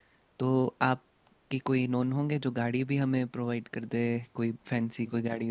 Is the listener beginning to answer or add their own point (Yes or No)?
Yes